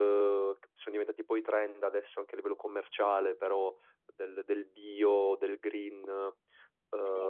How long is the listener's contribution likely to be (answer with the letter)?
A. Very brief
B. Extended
A